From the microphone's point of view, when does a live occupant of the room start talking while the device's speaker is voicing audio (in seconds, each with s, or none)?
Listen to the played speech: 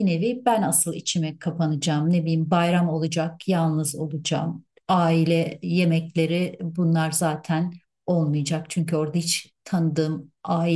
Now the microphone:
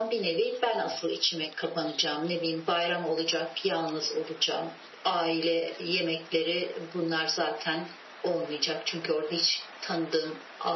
none